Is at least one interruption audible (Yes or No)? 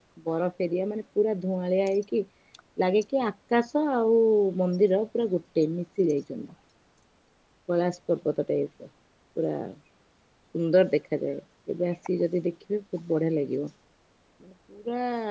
No